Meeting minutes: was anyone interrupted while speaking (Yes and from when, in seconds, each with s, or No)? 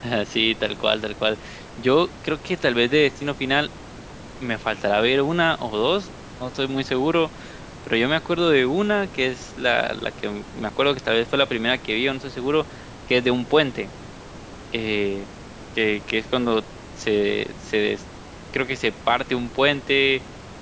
No